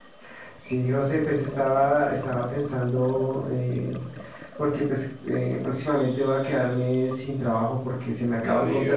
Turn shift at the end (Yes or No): No